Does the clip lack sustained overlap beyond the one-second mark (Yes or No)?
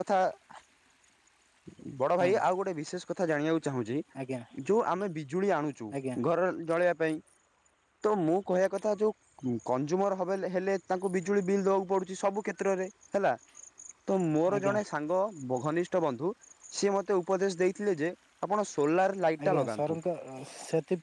Yes